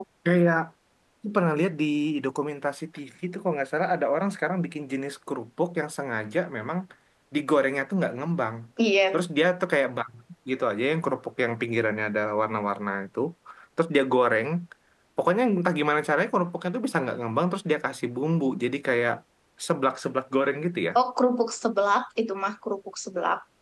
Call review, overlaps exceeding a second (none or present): none